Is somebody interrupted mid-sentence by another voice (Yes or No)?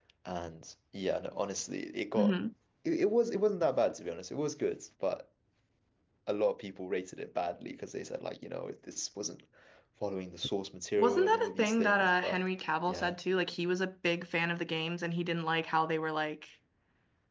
Yes